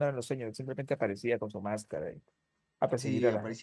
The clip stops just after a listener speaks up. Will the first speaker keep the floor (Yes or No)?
No